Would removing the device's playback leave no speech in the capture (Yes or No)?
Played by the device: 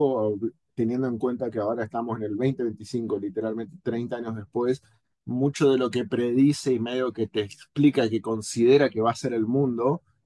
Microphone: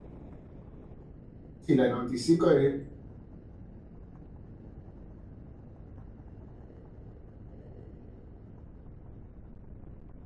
No